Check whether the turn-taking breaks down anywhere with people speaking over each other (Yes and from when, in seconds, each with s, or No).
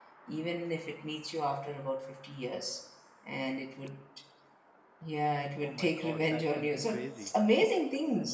Yes, from 5.6 s